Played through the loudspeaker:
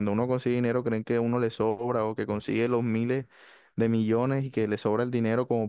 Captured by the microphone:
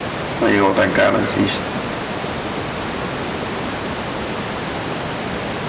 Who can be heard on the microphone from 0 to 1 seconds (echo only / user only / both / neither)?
user only